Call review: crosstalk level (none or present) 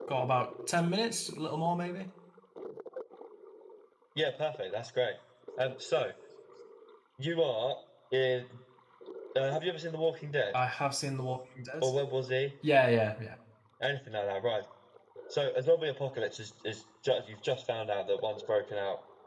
none